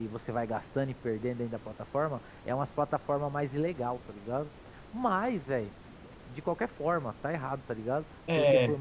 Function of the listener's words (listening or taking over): listening